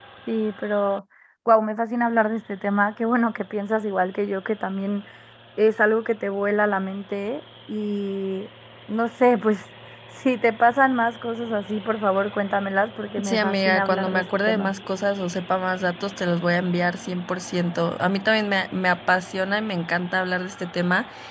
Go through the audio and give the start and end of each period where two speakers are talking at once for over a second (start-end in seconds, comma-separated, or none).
13.2-14.7